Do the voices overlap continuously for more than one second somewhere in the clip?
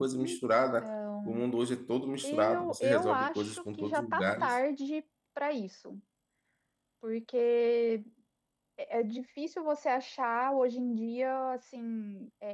Yes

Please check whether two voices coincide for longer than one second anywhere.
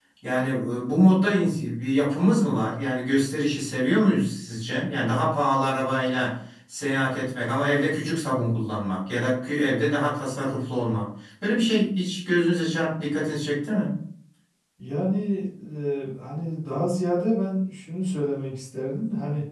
No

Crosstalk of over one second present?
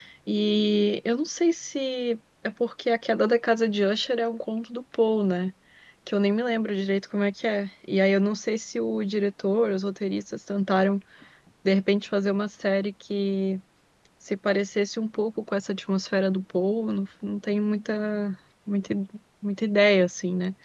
No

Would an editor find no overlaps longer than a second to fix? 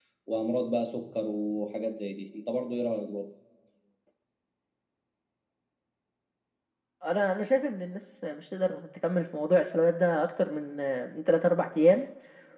Yes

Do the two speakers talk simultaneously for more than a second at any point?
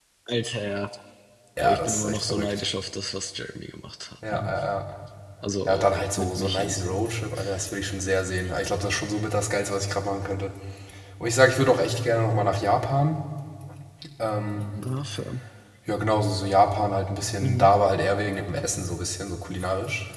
Yes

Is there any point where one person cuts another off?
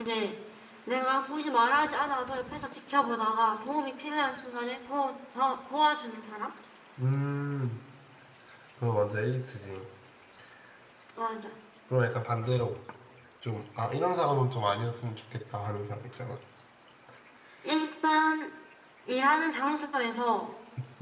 No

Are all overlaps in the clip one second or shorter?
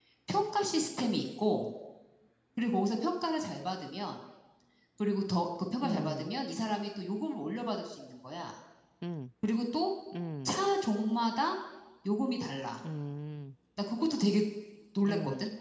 Yes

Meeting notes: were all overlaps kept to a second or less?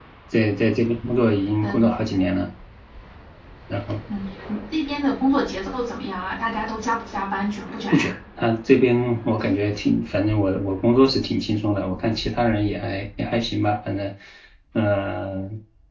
Yes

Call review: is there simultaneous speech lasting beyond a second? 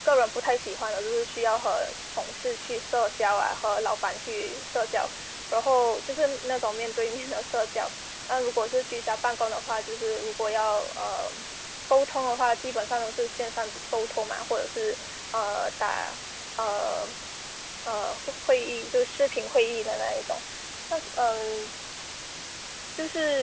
No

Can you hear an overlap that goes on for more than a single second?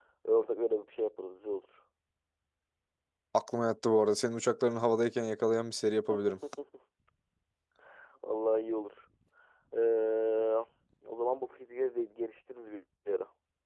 No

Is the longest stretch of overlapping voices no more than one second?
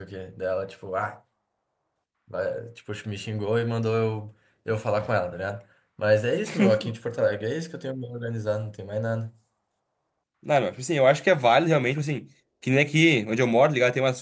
Yes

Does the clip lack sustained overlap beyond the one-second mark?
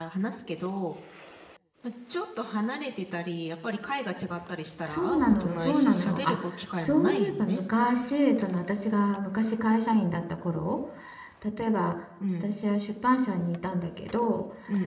No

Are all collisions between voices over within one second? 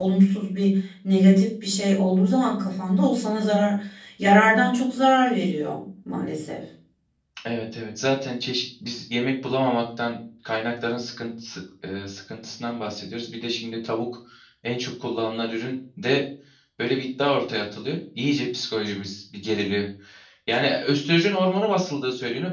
Yes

